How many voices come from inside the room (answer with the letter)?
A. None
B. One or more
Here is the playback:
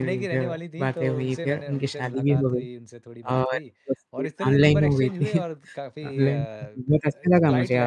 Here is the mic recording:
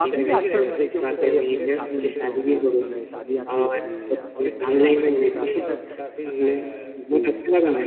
B